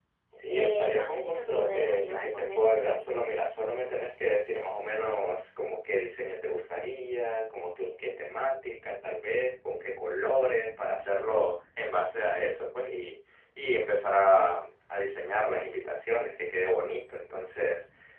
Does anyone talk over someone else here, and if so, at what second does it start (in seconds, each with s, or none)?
0.5 s